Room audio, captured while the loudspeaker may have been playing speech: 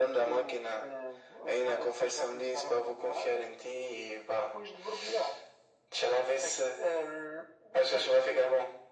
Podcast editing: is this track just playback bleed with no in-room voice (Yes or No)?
Yes